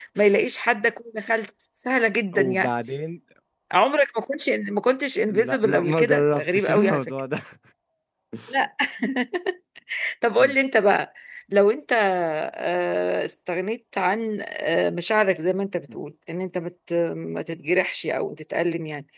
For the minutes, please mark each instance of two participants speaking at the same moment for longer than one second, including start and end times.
5.3-7.1

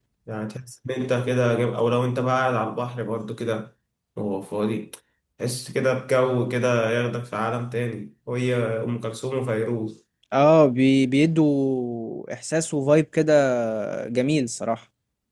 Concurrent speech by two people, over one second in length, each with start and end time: none

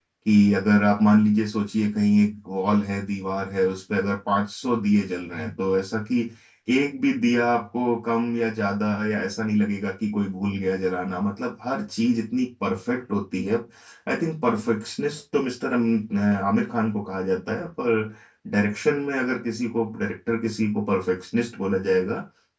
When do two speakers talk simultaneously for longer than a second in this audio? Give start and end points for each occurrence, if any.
none

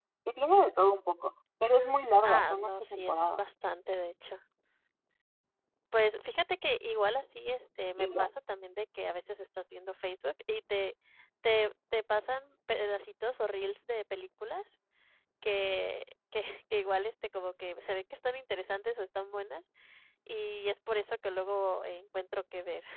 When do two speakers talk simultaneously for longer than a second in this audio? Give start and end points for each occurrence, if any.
2.2-3.4

